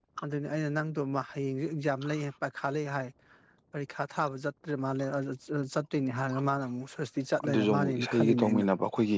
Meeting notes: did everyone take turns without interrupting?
No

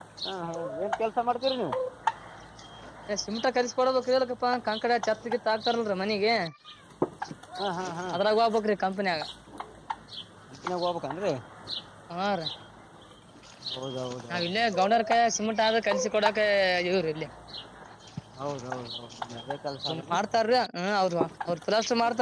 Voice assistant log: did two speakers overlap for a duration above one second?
No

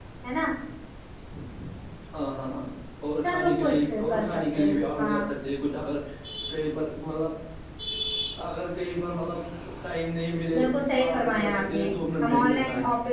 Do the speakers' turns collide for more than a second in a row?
Yes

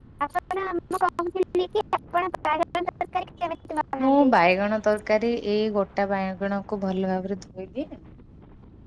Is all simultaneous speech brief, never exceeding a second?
Yes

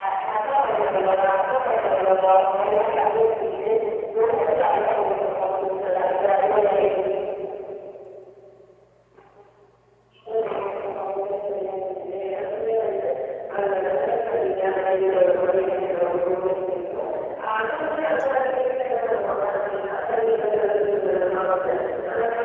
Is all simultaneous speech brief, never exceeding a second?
Yes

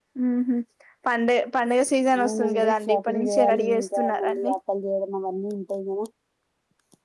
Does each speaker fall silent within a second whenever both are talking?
No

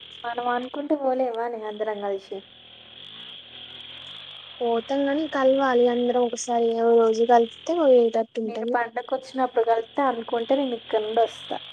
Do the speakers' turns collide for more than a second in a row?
No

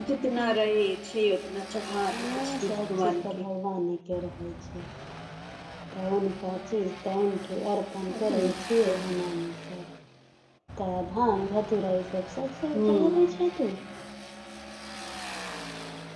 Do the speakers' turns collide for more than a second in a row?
Yes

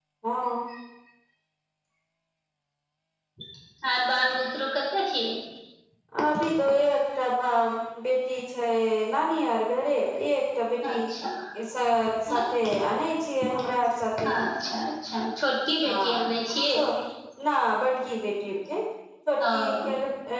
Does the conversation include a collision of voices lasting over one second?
No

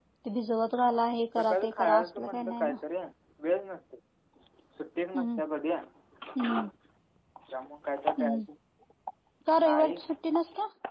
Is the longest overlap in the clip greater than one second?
Yes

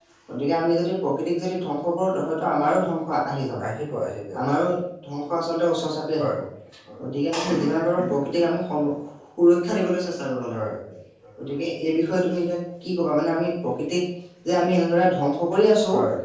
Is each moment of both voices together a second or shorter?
Yes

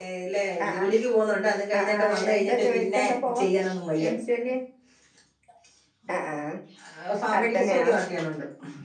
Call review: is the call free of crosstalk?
No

